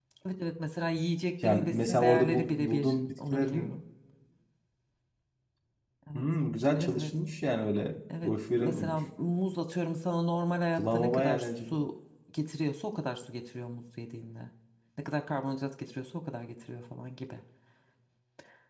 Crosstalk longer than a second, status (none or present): present